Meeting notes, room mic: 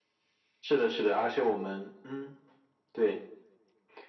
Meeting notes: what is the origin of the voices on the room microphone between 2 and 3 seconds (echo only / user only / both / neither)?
echo only